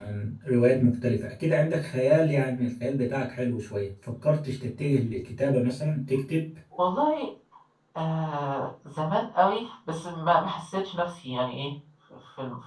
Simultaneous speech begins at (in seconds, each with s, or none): none